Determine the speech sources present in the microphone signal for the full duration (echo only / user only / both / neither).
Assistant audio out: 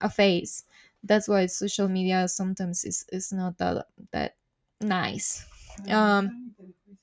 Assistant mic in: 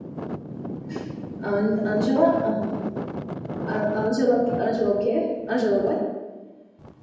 user only